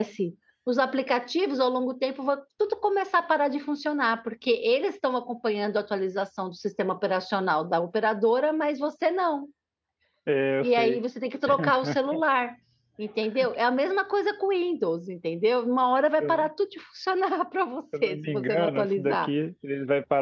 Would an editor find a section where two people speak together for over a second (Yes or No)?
Yes